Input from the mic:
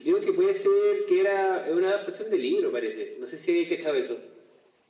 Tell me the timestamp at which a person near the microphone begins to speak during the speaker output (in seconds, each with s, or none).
none